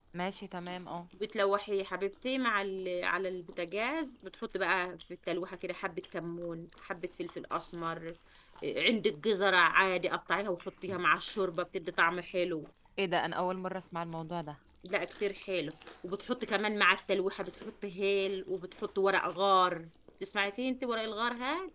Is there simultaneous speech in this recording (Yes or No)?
No